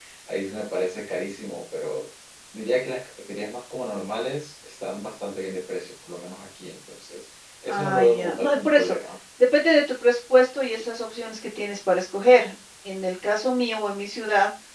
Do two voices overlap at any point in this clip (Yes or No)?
Yes